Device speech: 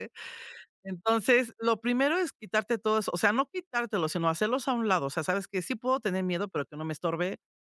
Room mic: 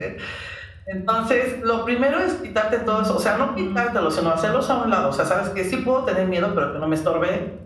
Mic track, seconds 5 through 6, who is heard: echo only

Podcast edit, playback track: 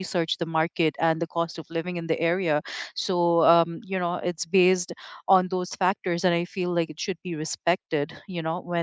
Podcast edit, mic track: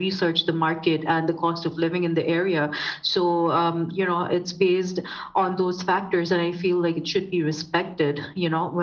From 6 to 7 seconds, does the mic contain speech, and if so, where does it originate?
echo only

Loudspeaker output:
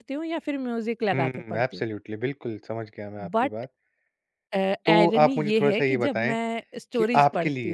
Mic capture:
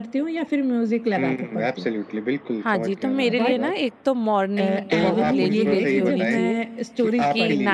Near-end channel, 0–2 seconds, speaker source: echo only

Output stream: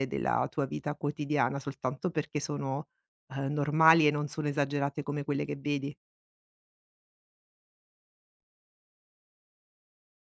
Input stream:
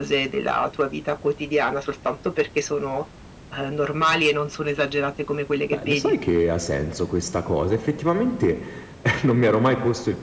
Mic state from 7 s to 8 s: user only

